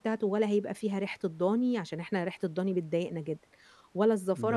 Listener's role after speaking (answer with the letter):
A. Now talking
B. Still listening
A